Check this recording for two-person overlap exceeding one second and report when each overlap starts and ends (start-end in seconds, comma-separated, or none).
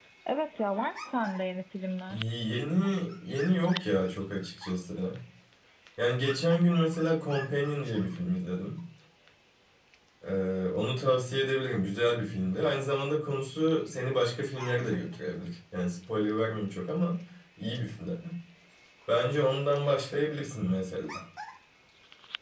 none